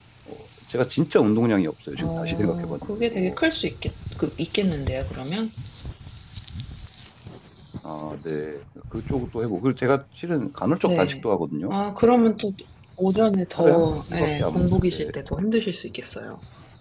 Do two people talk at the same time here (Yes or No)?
Yes